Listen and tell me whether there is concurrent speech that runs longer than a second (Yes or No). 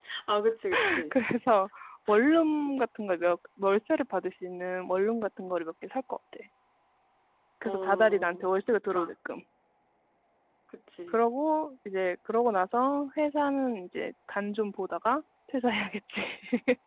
Yes